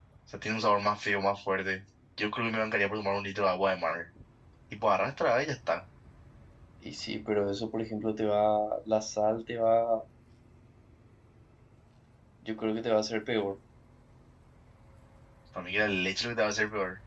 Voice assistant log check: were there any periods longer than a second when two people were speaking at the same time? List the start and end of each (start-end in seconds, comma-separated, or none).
none